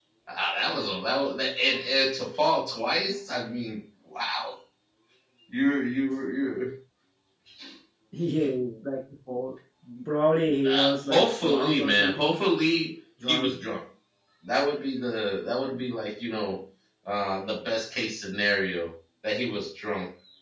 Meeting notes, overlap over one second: present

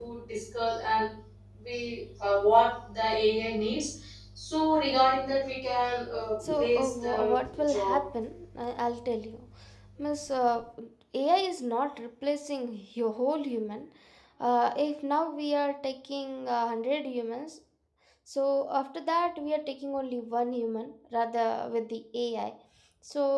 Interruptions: present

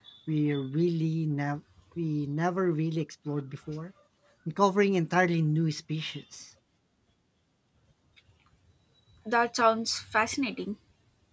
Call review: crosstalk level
none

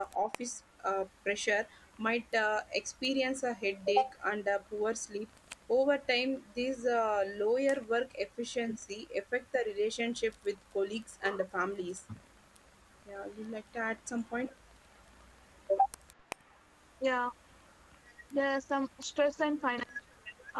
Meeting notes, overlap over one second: none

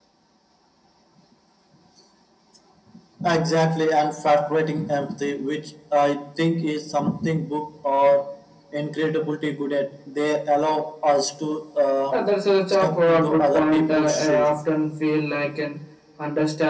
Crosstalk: present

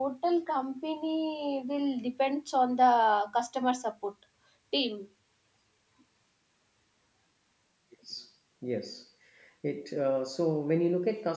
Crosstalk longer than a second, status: none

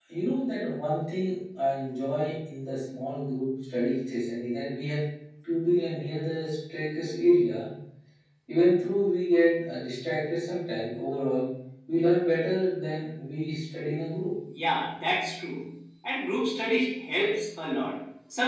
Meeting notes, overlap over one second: none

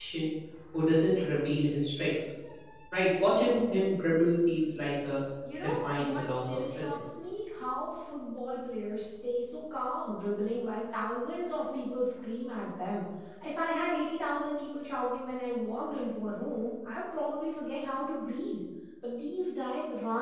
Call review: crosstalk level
present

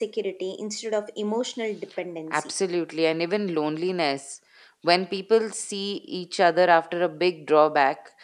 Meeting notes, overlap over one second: none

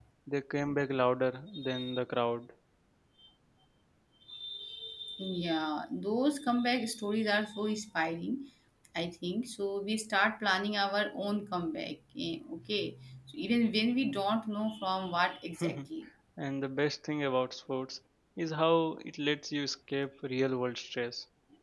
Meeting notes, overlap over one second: none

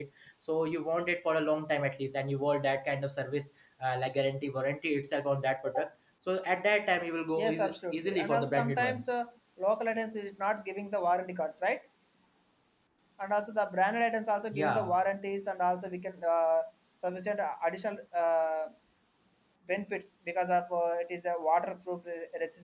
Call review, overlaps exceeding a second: present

